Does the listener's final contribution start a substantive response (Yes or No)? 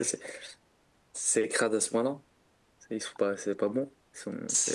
Yes